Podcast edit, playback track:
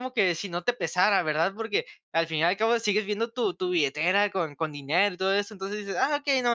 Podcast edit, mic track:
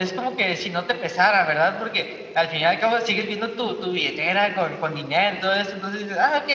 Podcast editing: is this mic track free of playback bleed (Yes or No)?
No